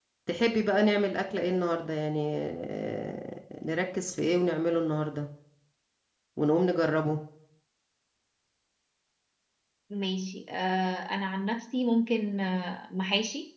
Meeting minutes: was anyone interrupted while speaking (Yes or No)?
No